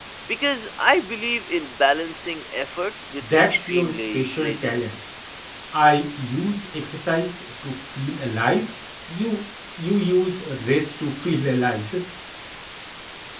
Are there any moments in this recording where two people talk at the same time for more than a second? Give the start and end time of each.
3.2-4.9

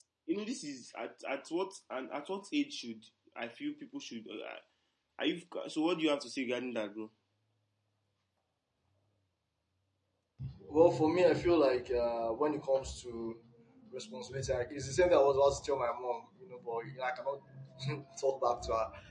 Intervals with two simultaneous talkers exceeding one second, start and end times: none

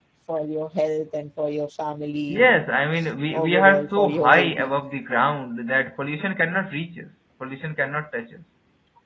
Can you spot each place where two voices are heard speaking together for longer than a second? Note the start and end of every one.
3.3-4.8

